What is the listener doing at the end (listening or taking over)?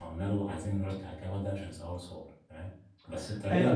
taking over